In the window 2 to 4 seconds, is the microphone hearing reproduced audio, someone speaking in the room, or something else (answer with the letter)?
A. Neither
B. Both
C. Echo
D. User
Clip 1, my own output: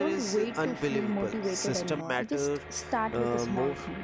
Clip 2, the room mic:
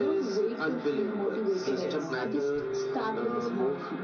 B